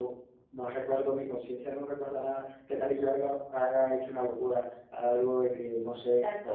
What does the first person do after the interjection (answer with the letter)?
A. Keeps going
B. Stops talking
B